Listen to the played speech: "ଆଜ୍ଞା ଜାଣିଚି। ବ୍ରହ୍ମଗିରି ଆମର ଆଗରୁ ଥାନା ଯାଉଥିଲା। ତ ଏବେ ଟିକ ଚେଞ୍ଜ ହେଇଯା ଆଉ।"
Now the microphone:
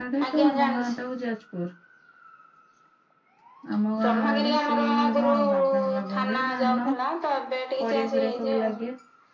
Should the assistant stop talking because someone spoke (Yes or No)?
Yes